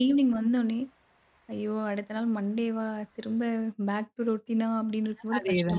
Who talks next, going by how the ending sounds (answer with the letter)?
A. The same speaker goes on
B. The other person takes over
B